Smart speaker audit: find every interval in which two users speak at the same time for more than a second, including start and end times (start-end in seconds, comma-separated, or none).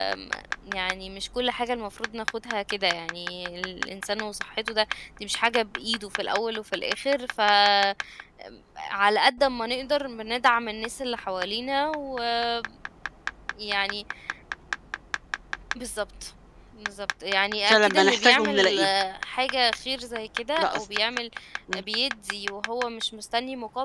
17.6-18.9